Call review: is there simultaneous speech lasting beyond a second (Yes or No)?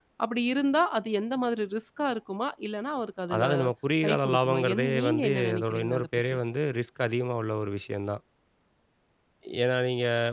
Yes